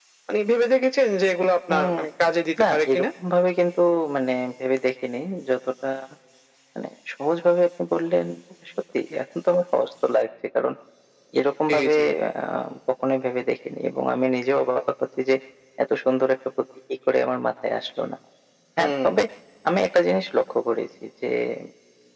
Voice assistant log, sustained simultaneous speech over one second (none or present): none